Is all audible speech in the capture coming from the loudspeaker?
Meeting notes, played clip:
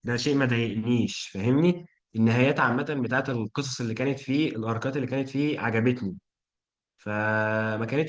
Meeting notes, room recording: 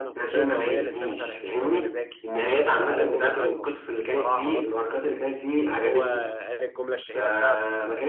No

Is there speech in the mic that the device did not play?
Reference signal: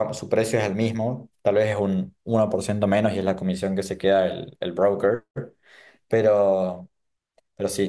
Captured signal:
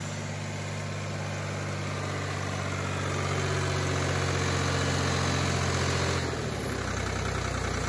No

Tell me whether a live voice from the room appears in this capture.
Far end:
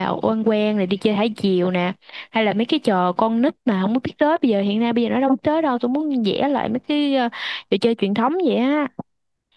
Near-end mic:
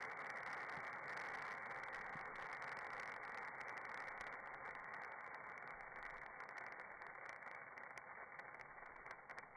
No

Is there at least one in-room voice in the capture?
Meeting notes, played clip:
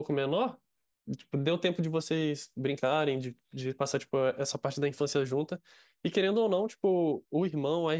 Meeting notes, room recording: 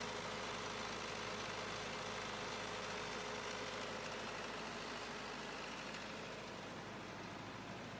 No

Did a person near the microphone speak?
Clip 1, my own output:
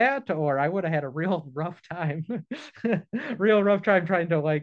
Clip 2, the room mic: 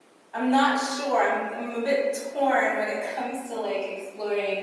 Yes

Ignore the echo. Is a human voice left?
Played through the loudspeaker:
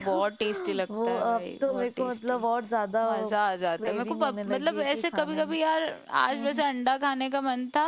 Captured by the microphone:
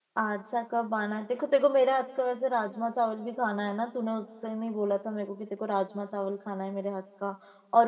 Yes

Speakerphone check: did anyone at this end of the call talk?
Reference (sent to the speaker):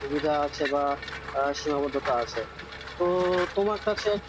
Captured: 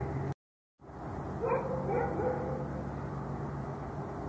No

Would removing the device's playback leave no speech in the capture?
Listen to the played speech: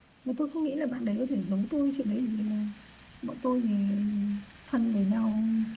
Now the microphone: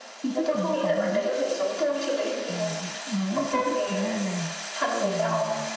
No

